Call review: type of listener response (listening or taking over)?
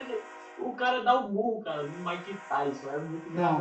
listening